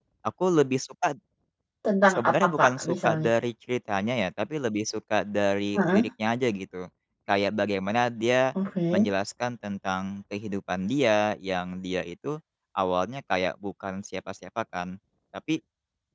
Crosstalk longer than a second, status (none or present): present